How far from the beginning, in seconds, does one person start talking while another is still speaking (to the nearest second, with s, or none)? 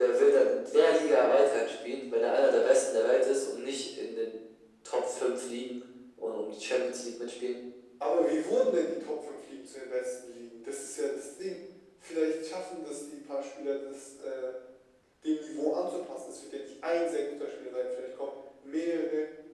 none